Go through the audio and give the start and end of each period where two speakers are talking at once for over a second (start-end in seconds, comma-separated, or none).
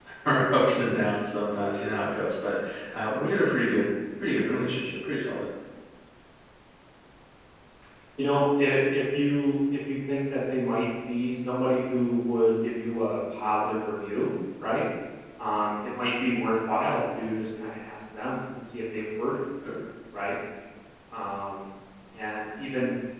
none